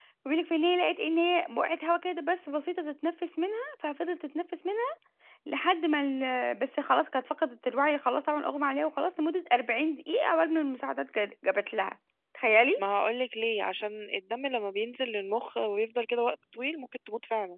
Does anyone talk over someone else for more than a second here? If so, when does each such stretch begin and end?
none

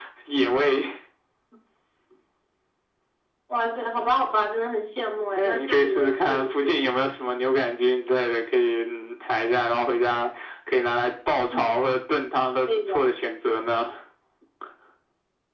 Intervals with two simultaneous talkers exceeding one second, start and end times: 5.4-6.9

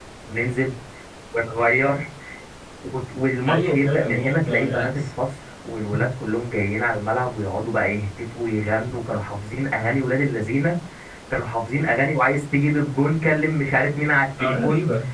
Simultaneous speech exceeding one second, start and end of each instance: 3.5-4.9

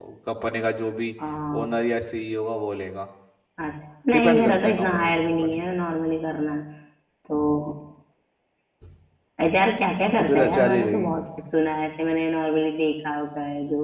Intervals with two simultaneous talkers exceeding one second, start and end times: 4.1-5.6, 9.8-11.1

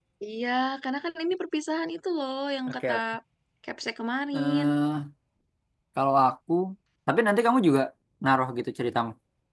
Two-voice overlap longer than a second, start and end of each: none

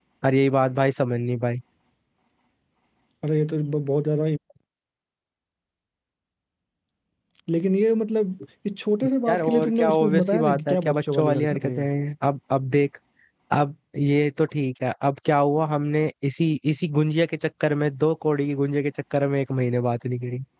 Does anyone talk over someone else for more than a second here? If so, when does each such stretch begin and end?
9.3-11.9

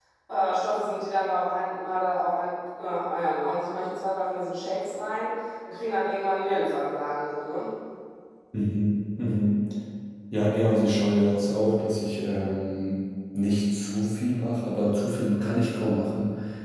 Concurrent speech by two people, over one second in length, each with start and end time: none

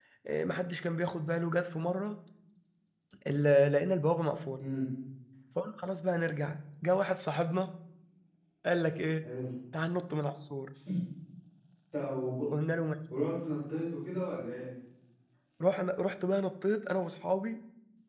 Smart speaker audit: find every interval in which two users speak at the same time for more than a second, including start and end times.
none

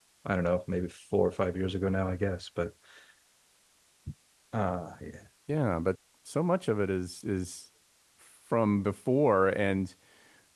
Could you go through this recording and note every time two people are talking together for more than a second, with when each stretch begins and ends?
none

